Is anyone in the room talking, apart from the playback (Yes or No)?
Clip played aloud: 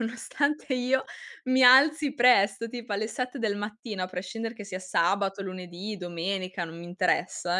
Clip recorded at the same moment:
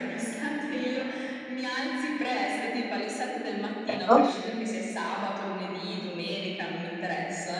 Yes